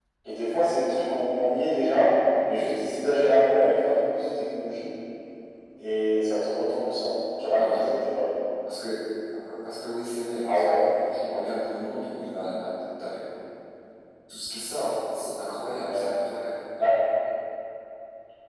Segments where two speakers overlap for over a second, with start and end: none

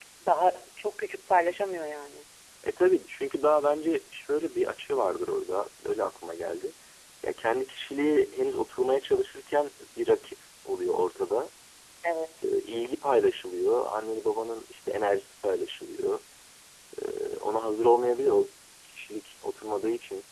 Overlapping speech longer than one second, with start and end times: none

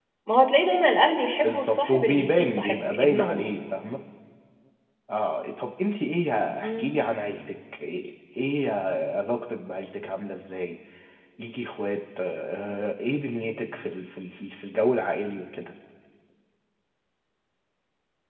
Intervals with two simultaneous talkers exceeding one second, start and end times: 1.4-3.4

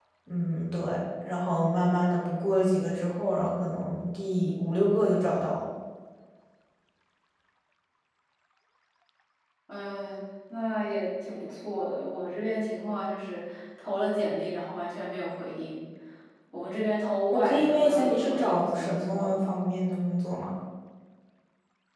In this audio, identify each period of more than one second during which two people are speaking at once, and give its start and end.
17.3-19.4

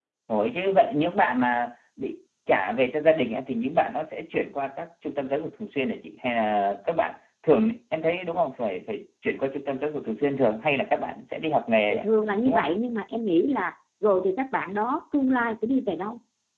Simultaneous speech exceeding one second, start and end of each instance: none

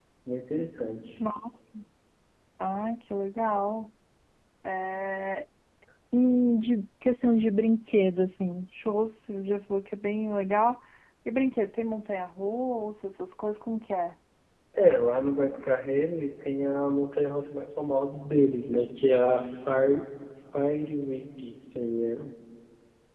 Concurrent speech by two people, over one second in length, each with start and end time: none

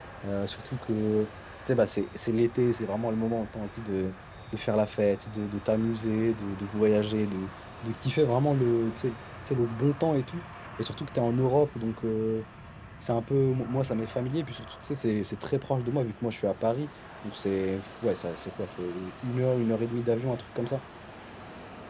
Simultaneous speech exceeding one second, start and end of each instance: none

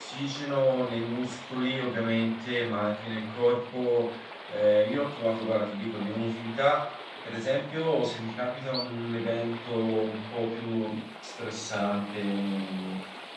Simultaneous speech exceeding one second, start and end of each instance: none

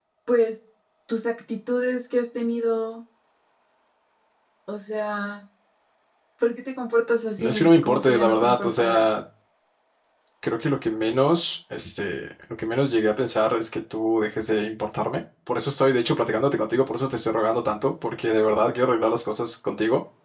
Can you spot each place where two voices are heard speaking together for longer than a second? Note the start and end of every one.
7.4-9.1

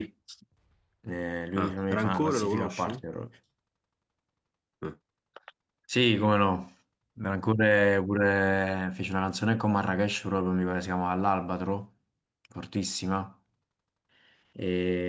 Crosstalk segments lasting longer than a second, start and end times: 1.6-3.0

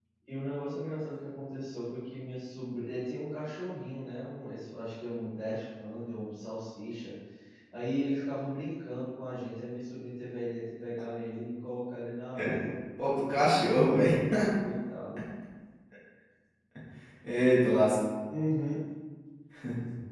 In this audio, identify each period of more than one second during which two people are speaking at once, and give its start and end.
none

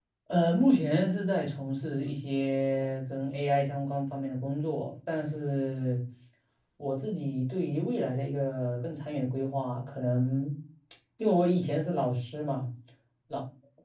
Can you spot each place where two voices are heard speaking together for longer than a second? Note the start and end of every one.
none

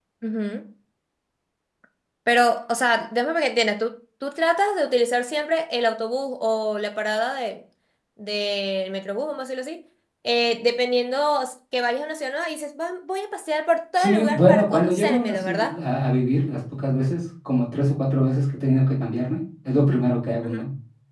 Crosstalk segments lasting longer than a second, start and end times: 14.0-15.8

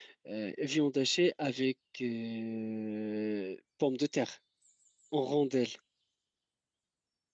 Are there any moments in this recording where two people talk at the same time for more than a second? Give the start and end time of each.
none

